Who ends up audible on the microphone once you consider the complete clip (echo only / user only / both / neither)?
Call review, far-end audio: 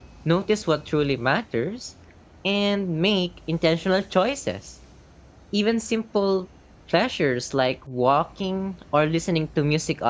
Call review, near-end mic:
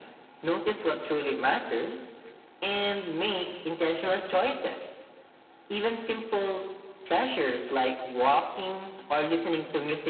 echo only